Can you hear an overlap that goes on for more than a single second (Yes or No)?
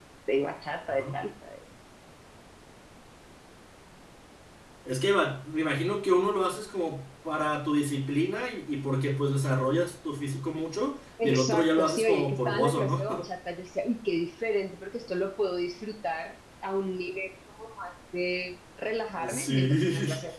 Yes